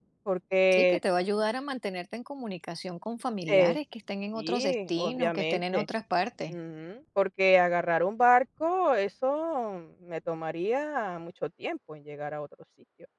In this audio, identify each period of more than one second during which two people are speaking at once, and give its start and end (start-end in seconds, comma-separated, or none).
4.4-5.9